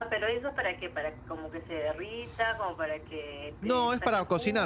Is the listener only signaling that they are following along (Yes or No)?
No